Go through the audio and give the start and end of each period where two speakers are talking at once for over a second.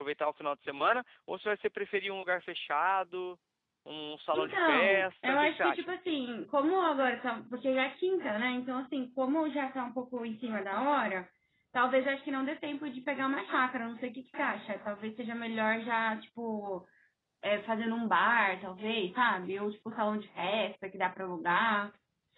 4.3-5.9

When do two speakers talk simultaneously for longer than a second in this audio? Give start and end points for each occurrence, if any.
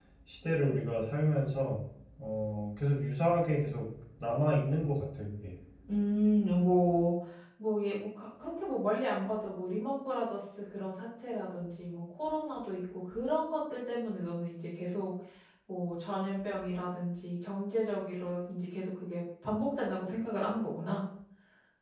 none

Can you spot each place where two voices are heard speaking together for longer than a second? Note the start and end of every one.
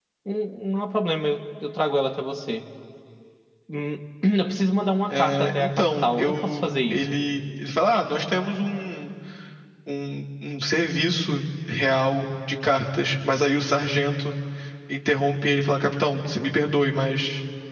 5.1-7.2

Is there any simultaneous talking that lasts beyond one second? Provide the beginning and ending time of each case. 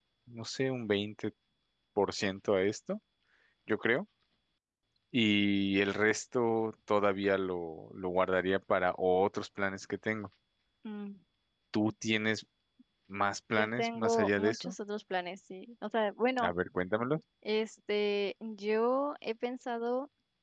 13.5-14.7

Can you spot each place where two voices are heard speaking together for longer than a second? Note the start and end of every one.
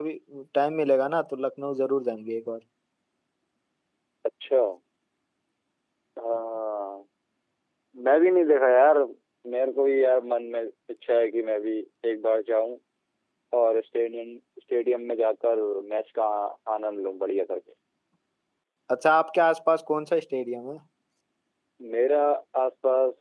none

